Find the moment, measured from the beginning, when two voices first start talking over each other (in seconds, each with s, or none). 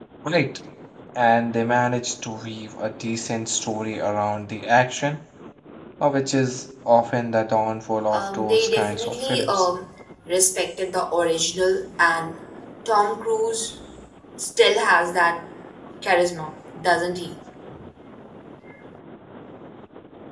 8.1 s